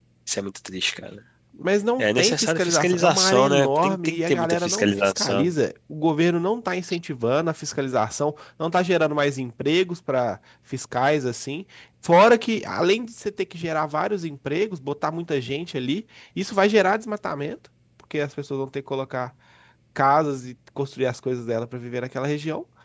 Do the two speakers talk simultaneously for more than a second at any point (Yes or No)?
Yes